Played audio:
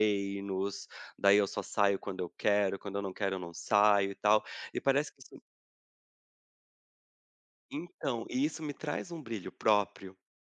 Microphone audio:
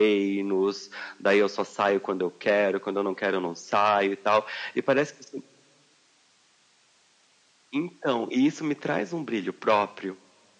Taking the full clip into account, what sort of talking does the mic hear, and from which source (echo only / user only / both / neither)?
echo only